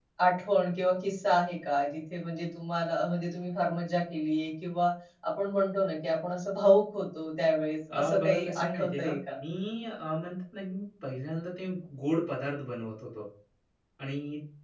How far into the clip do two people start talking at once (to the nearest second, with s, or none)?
8 s